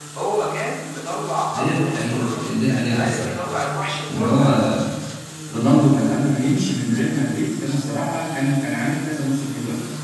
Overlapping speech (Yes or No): Yes